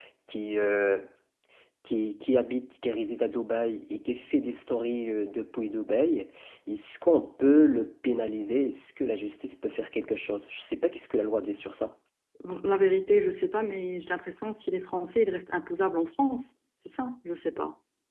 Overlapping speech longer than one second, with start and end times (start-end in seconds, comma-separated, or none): none